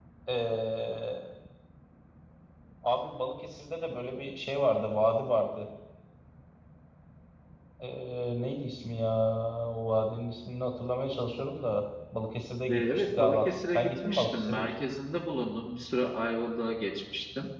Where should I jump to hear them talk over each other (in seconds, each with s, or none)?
12.7 s